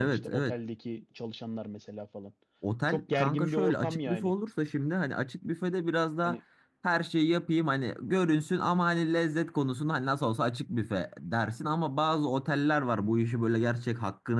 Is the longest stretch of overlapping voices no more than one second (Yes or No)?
No